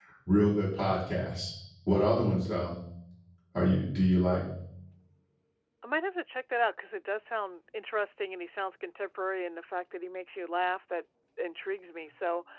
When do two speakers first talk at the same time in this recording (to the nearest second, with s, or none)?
none